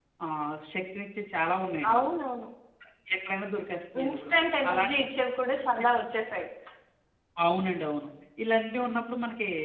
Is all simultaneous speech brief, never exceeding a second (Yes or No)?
Yes